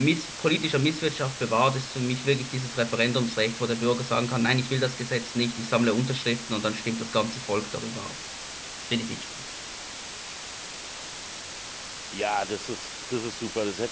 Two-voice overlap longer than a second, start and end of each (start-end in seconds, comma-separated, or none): none